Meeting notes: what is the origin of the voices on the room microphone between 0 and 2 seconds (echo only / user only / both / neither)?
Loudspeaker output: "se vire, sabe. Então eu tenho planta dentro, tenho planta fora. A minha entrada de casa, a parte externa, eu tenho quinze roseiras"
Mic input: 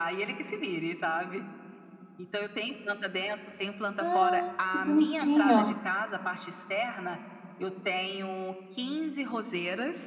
echo only